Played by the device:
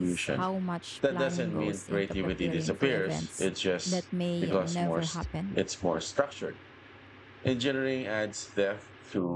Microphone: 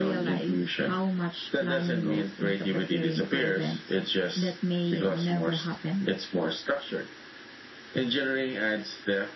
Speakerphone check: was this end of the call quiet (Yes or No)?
Yes